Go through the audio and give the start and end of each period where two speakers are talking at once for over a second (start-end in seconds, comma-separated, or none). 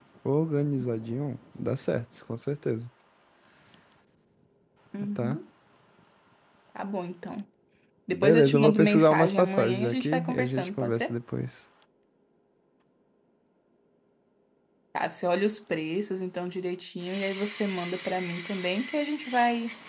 8.1-11.1